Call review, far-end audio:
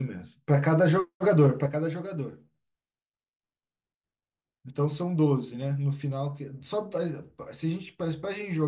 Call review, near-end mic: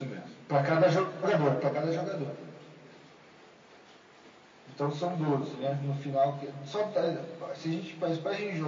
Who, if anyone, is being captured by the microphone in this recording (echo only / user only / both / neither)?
echo only